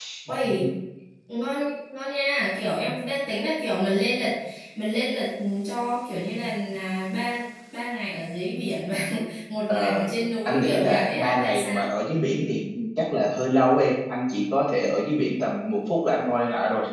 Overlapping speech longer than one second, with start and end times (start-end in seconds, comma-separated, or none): 10.4-11.9